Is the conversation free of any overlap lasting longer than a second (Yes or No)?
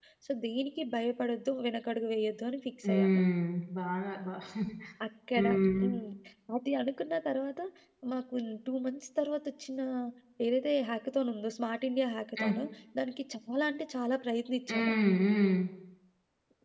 Yes